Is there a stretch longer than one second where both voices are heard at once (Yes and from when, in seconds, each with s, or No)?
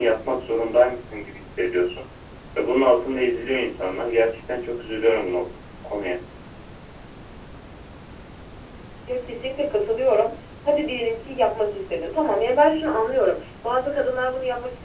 No